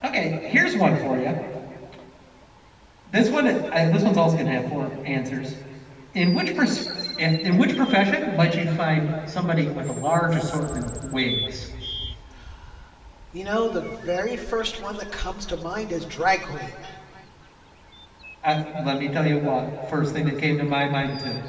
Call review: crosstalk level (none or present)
none